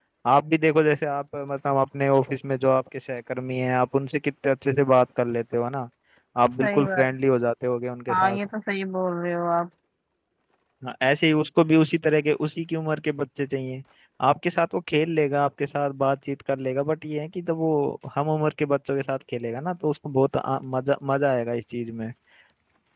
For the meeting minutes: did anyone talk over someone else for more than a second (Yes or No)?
No